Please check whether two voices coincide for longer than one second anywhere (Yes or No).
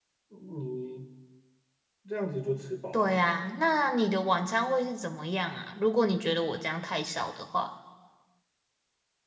No